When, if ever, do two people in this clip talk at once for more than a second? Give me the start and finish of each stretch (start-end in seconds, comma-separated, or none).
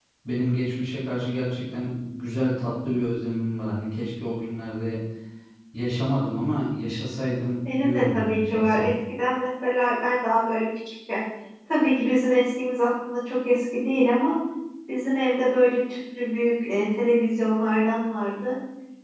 7.6-8.9